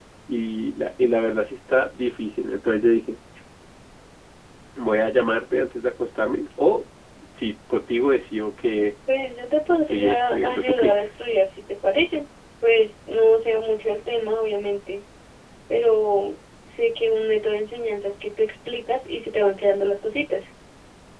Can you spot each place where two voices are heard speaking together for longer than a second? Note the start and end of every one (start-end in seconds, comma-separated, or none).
9.8-11.1